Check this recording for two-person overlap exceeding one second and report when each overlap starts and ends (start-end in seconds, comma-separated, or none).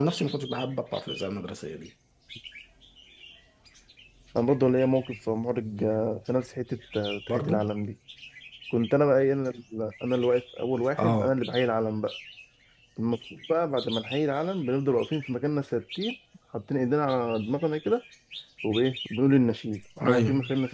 none